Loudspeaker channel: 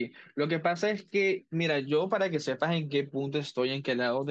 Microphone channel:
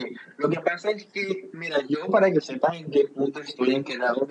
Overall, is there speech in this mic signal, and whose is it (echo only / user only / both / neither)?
echo only